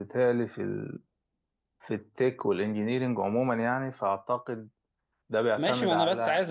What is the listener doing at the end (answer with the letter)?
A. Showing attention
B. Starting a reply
B